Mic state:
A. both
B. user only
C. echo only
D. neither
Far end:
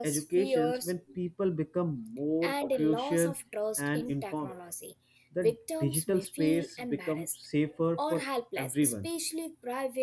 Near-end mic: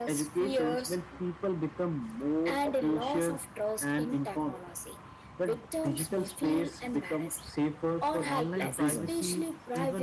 A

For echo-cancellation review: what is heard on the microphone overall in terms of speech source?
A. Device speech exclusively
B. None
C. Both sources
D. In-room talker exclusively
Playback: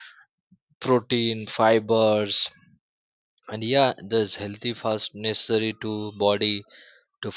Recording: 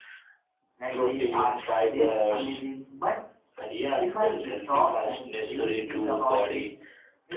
C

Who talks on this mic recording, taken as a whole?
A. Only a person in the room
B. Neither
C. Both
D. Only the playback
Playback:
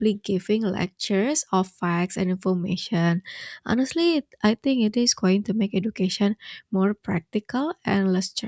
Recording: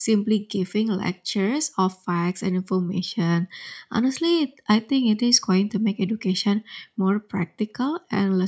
D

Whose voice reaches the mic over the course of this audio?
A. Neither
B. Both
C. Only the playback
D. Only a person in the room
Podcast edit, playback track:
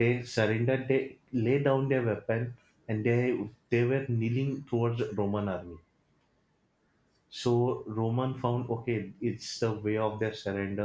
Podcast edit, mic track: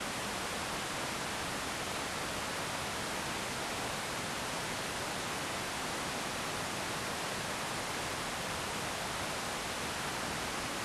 A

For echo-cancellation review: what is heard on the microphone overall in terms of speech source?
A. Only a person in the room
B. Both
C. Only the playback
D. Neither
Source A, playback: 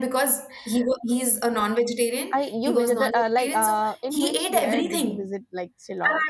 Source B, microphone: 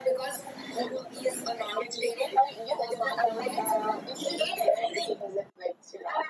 C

